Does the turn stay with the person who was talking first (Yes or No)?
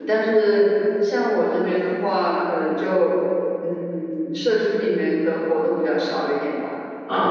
Yes